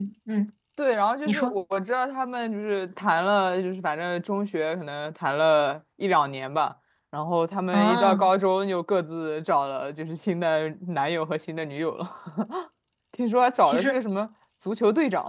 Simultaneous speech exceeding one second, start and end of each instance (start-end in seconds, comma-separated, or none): none